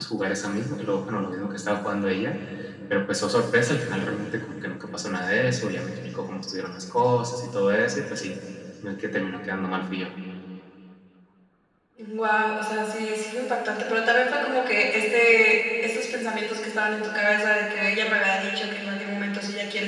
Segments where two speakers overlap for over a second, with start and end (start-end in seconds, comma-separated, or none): none